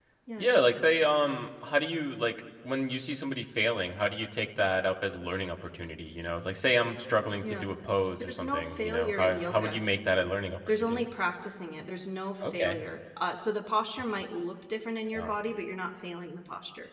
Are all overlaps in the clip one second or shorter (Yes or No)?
No